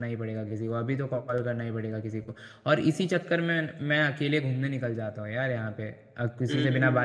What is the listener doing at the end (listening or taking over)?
listening